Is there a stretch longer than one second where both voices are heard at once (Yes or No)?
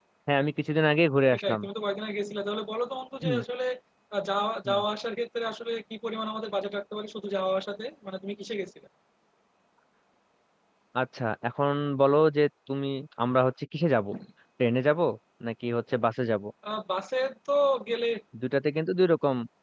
No